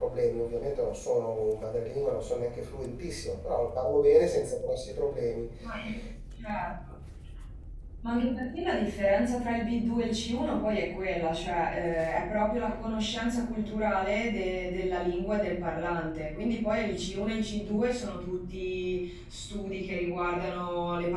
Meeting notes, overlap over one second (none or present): none